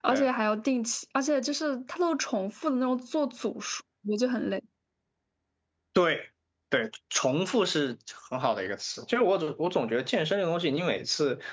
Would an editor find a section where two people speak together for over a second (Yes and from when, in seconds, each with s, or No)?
No